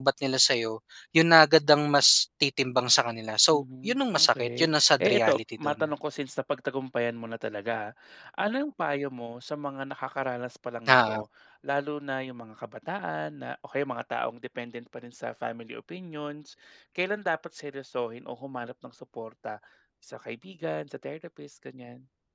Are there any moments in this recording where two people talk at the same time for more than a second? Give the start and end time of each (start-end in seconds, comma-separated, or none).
3.5-5.8